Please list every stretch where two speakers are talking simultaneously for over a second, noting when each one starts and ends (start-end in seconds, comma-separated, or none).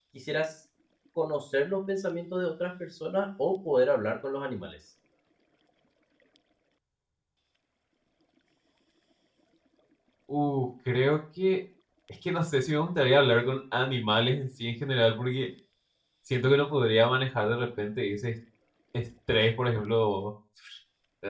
none